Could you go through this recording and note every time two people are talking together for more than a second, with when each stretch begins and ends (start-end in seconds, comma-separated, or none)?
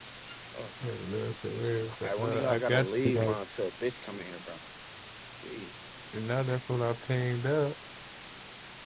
2.0-3.4